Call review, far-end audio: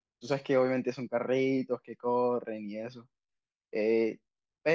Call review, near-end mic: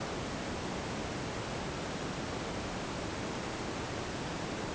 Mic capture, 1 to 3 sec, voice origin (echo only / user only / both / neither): neither